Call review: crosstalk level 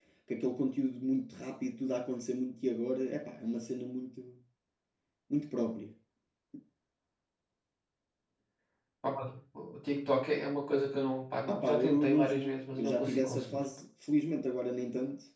present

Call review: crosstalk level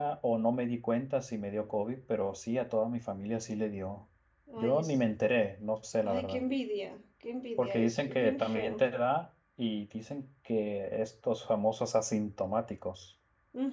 present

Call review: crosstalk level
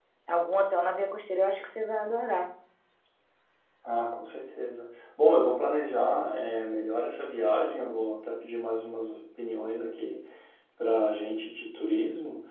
none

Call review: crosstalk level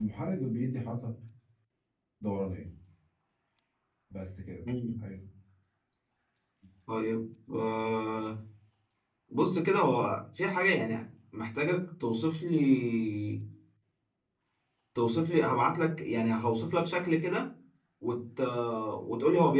none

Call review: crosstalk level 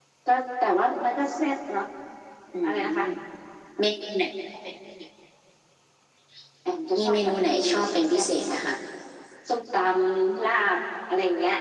present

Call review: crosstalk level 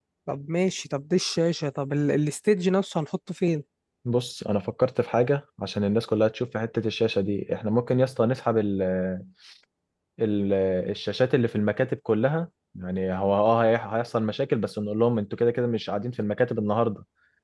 none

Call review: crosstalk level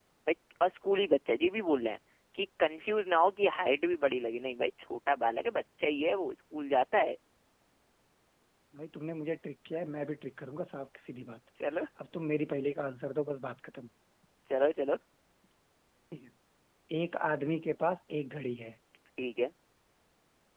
none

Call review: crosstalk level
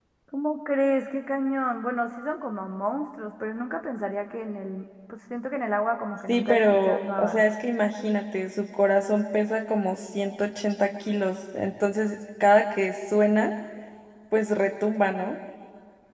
present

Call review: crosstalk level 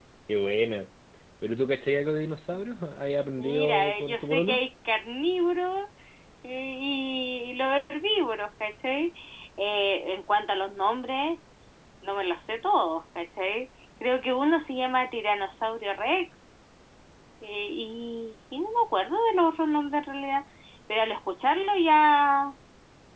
present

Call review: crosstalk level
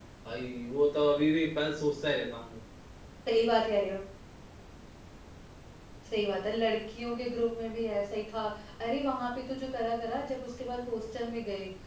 none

